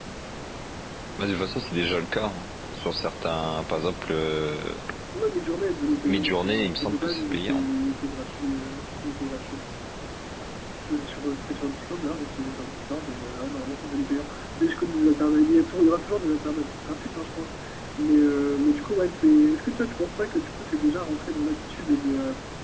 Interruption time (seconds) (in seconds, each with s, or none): 6.0 s